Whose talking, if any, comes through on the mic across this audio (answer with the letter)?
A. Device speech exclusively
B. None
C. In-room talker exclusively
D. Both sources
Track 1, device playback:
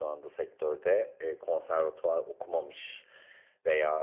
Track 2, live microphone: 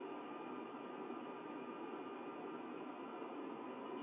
B